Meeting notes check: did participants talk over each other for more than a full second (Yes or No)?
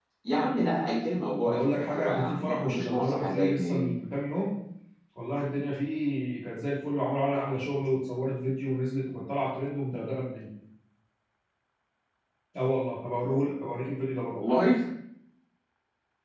Yes